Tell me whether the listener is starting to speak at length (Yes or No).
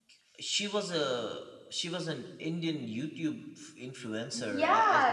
Yes